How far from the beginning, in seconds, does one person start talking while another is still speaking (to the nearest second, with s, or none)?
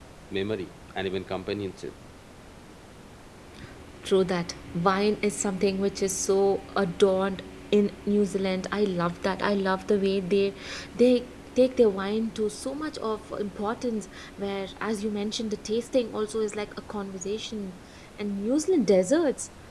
none